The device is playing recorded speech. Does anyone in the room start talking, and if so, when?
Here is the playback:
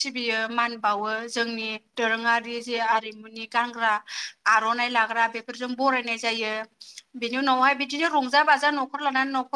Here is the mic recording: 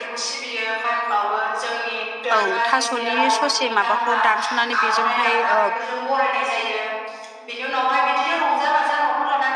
2.4 s

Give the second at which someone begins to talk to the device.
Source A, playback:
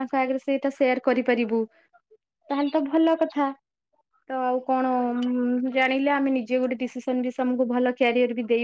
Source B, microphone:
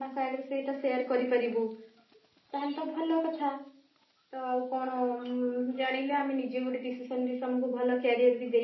none

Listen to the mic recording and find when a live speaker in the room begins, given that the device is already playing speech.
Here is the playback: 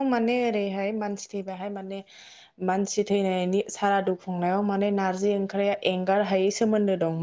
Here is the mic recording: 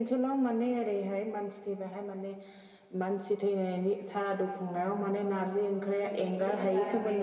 6.0 s

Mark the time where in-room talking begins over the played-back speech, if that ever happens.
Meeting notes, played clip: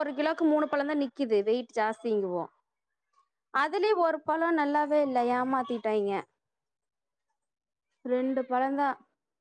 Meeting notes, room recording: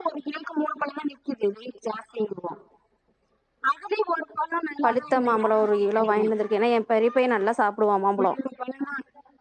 4.8 s

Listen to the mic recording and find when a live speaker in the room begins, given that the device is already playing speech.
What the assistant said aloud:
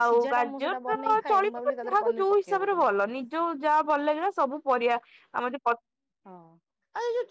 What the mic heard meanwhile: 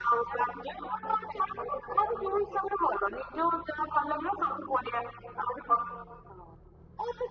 none

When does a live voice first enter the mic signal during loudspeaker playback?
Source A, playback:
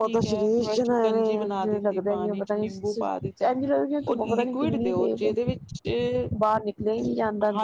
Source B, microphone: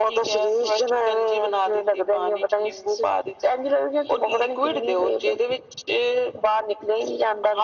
none

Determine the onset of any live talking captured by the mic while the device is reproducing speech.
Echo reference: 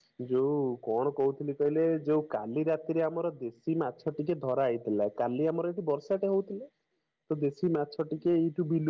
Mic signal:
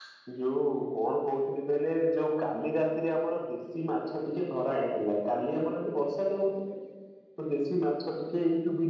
none

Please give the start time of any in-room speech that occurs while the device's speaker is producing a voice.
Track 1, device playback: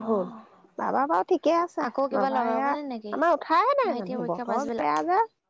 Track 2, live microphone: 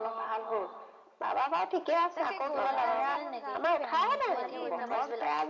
2.2 s

